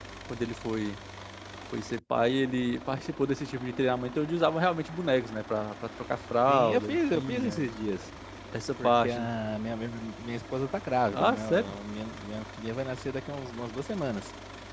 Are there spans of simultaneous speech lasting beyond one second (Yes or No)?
Yes